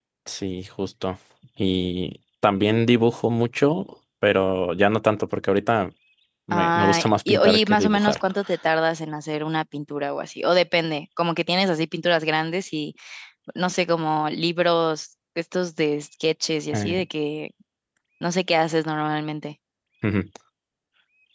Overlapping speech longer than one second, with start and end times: 6.5-8.2

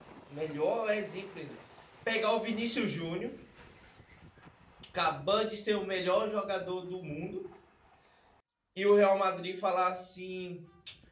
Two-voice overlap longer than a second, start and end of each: none

